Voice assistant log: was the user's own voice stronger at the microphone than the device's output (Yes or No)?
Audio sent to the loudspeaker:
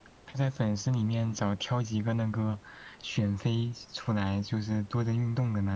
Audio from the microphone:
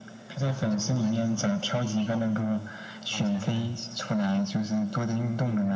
No